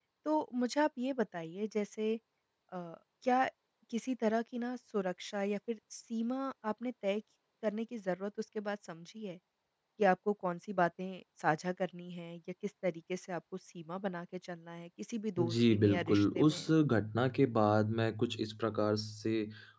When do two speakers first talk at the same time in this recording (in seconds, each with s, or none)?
15.4 s